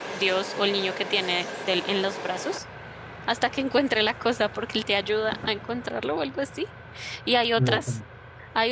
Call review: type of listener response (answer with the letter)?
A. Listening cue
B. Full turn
A